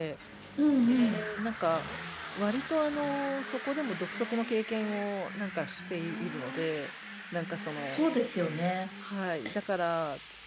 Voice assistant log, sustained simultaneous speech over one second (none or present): none